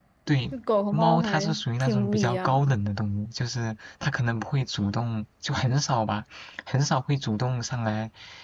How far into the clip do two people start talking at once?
1 s

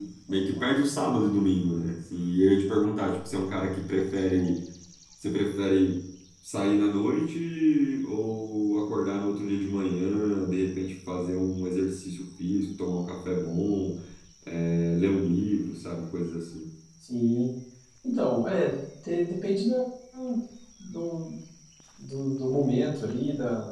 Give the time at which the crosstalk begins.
none

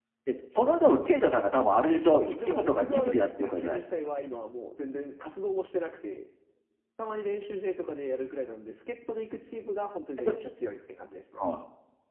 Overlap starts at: 2 s

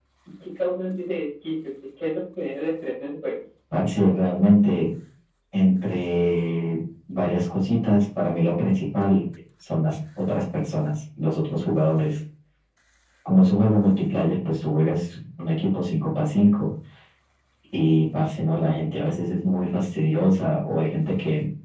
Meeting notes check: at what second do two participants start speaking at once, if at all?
none

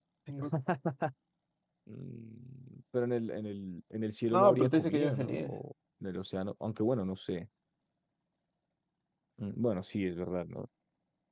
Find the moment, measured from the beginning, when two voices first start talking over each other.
4 s

